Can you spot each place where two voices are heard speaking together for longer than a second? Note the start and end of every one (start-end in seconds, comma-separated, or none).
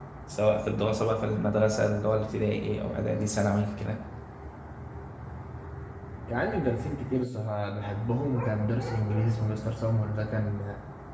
none